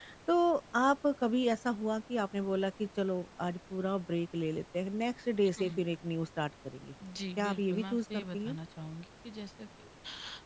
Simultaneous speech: Yes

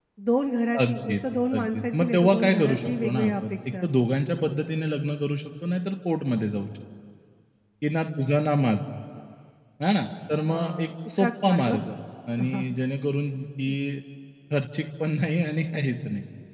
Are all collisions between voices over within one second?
No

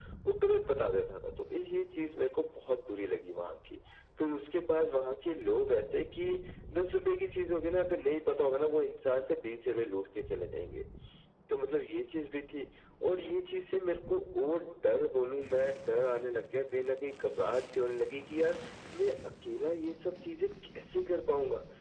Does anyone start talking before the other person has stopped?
No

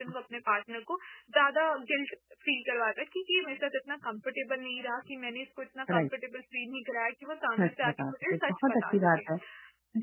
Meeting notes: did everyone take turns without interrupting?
No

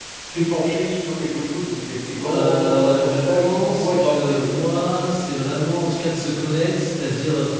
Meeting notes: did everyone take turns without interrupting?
No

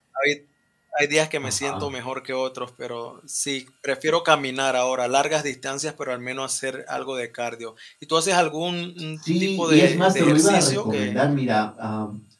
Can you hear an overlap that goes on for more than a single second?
Yes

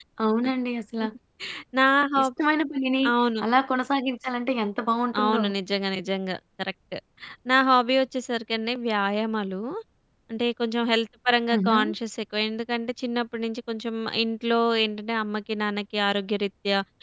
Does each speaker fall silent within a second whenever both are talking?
Yes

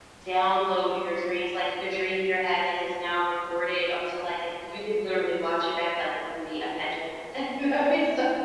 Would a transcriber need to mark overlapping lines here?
No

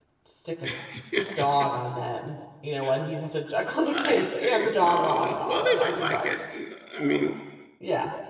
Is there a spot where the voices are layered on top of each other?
Yes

